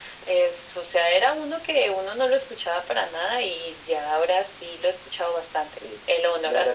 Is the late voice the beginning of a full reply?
Yes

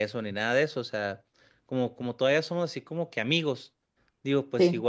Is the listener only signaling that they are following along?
Yes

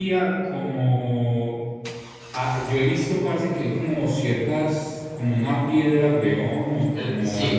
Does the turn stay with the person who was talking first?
Yes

